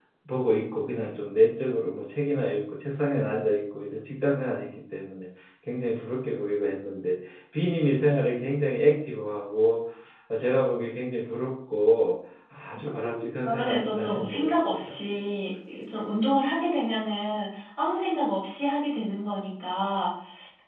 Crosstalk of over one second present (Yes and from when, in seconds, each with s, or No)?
Yes, from 12.9 s